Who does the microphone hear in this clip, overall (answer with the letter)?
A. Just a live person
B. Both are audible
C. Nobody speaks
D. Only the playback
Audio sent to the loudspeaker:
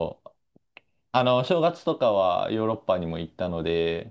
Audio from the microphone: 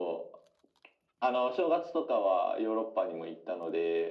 D